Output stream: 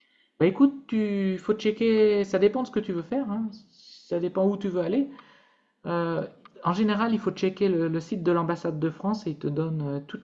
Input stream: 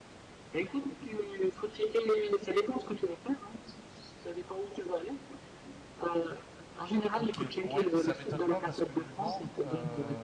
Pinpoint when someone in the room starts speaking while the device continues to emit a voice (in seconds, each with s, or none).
7.1 s